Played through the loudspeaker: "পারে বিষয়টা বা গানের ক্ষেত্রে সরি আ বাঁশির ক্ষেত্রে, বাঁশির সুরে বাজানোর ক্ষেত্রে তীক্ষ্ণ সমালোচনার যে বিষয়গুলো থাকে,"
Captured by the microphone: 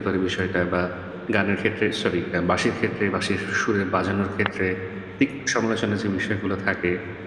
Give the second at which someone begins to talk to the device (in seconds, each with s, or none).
none